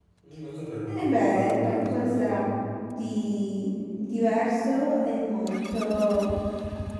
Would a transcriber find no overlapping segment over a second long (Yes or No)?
No